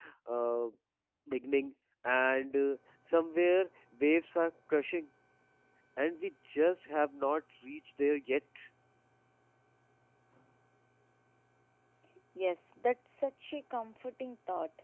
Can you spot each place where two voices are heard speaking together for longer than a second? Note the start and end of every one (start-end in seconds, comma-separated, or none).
none